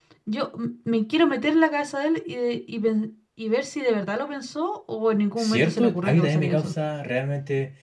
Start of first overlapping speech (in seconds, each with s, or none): 5.4 s